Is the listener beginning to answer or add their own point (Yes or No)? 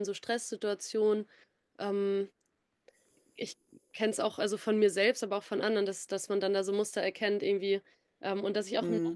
No